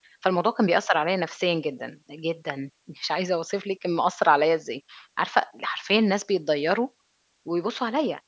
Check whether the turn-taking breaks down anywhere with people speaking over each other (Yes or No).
No